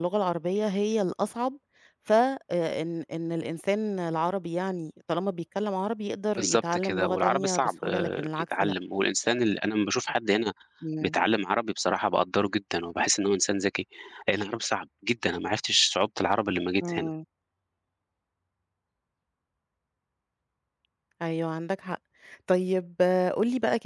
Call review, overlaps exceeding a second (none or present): present